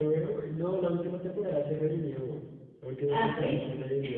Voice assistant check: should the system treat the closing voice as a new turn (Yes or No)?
No